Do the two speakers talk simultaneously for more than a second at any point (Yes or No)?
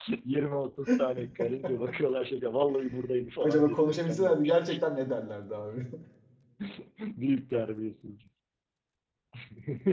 Yes